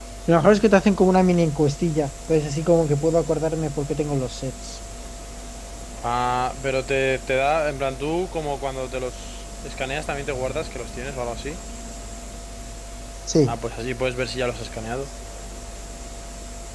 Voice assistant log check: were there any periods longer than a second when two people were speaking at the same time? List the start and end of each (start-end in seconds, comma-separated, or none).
none